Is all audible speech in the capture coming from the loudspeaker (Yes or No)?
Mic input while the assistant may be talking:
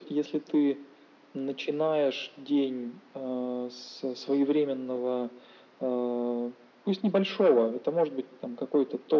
Yes